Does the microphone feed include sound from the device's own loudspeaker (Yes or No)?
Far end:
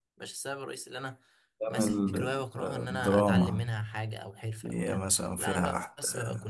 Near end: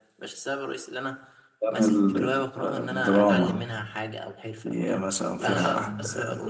Yes